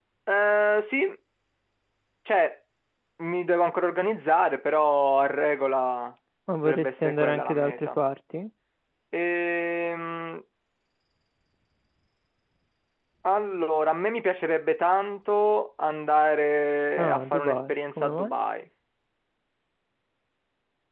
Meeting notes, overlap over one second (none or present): present